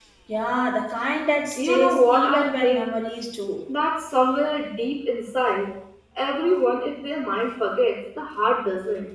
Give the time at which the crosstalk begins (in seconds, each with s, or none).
1.6 s